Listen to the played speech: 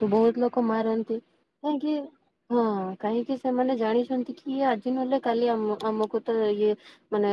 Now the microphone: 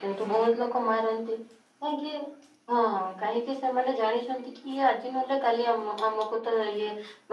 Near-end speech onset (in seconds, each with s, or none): none